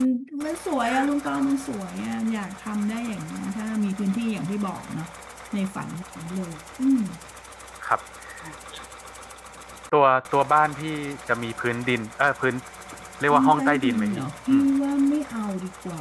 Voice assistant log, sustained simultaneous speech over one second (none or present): present